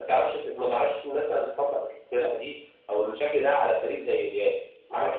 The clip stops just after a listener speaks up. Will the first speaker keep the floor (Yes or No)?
No